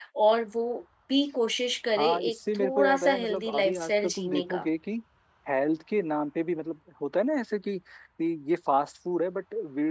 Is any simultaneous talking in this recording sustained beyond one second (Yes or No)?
Yes